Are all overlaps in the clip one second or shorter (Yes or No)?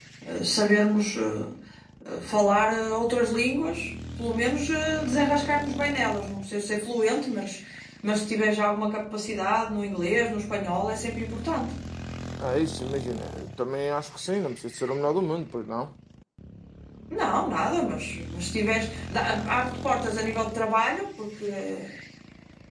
Yes